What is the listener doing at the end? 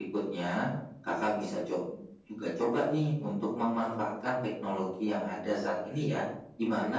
listening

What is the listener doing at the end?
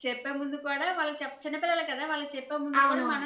listening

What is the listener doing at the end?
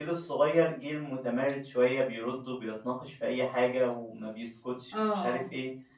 listening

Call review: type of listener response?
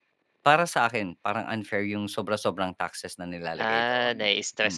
taking over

